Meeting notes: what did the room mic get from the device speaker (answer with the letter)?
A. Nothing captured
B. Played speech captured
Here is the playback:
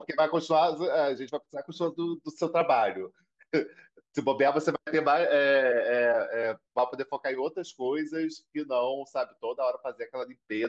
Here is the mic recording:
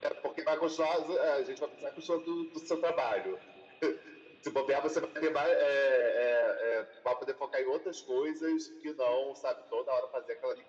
B